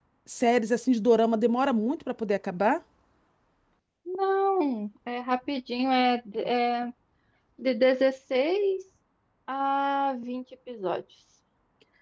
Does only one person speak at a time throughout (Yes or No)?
Yes